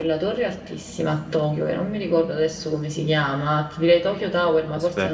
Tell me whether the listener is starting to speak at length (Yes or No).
No